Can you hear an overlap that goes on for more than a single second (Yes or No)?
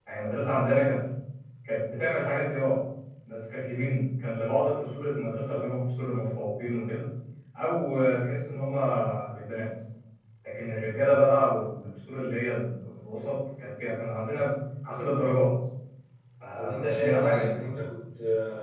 Yes